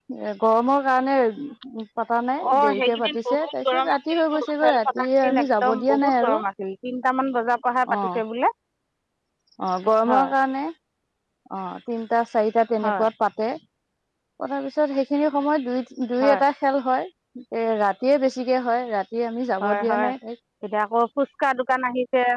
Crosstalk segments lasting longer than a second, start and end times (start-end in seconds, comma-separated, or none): 2.5-6.4